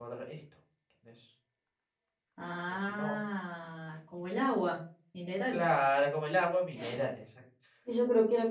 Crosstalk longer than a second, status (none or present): none